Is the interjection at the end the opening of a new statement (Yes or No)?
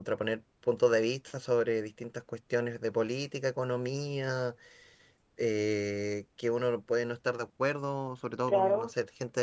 No